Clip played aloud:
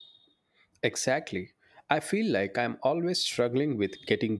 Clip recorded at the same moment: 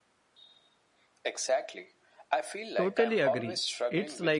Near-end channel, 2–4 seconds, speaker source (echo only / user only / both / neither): both